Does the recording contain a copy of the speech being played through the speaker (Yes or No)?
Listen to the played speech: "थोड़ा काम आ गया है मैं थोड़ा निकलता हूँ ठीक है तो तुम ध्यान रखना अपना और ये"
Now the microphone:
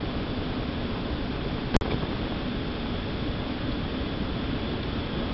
No